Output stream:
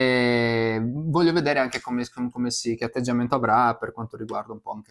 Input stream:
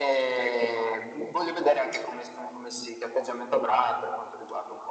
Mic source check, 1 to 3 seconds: echo only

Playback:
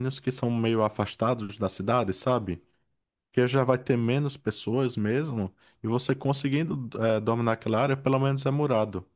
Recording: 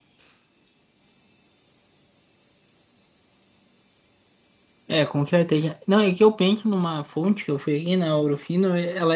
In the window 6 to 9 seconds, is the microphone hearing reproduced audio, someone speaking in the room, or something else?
user only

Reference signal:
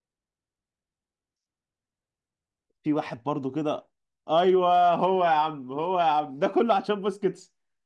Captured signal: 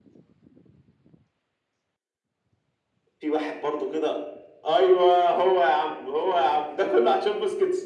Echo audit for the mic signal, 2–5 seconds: echo only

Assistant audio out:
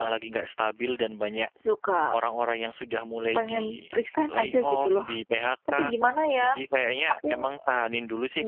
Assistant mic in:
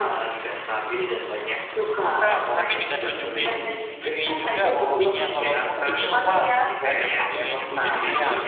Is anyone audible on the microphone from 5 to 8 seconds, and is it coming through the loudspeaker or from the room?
both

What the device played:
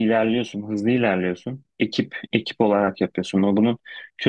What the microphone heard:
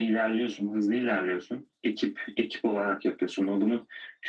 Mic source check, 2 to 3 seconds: echo only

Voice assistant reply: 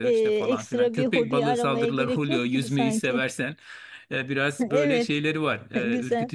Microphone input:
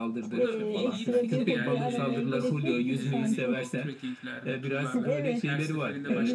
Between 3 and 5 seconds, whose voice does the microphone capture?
both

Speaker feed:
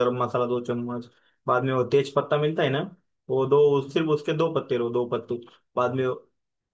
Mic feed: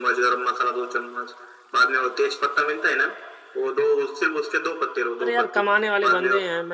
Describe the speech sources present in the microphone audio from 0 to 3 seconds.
echo only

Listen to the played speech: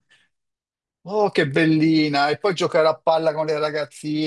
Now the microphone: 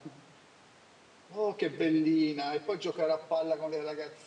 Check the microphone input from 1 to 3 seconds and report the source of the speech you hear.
echo only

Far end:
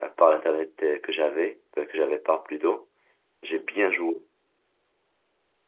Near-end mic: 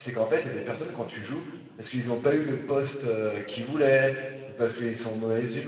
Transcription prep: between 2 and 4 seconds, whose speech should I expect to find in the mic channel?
user only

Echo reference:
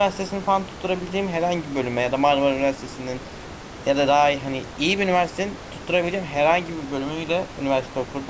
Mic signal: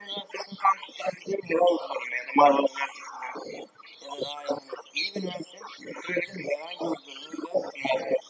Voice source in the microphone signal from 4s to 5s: echo only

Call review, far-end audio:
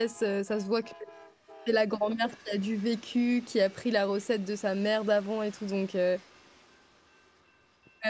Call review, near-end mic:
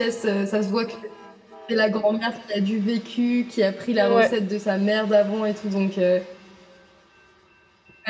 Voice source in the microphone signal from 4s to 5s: both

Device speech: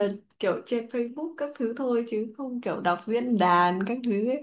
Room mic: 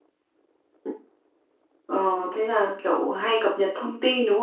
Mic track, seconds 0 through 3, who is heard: user only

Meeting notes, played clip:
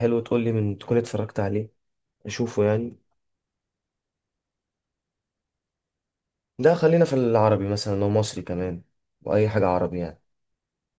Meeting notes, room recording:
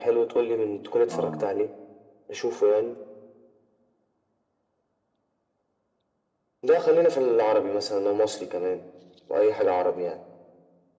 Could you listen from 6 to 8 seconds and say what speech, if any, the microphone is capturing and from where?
echo only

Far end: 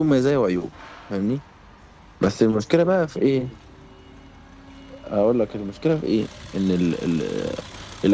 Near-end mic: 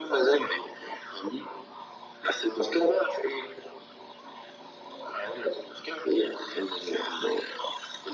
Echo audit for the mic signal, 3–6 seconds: echo only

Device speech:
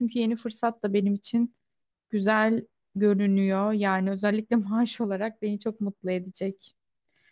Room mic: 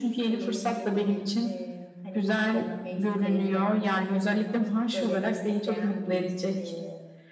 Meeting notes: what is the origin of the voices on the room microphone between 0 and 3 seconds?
both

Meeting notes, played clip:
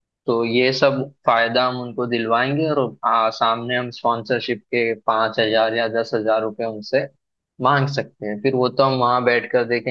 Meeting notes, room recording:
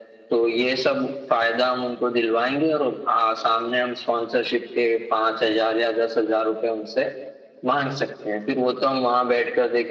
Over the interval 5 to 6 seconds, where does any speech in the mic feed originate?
echo only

